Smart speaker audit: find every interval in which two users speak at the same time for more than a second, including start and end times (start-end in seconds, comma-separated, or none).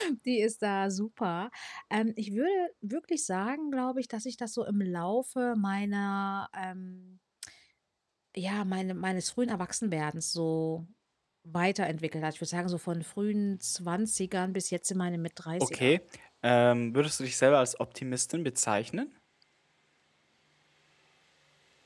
none